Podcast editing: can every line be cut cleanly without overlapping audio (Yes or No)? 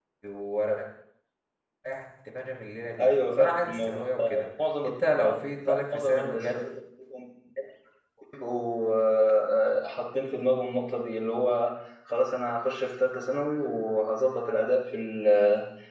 No